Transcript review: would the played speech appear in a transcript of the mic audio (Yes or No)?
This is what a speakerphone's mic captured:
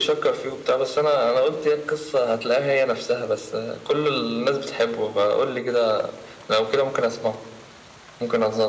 Yes